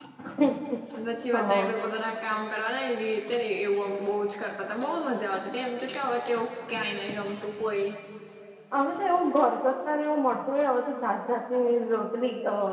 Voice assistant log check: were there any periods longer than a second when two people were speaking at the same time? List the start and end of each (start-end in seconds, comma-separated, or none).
none